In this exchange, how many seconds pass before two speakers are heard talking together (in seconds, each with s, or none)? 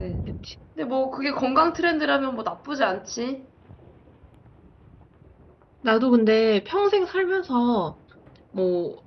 none